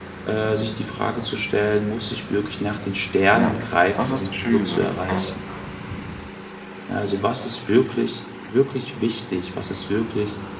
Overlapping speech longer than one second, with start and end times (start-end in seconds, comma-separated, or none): 4.0-5.2